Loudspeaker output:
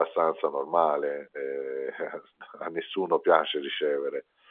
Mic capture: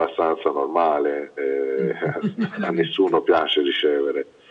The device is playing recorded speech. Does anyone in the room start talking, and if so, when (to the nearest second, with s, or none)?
2 s